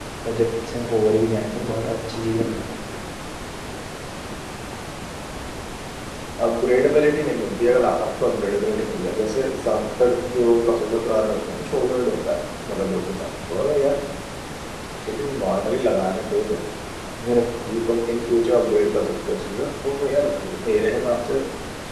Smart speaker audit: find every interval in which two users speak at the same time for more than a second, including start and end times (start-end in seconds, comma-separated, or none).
none